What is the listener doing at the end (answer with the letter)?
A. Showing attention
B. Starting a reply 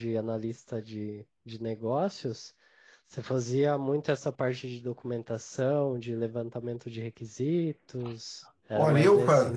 B